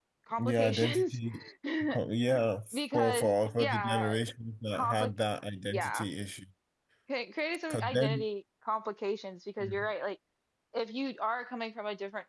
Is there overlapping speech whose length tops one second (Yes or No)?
Yes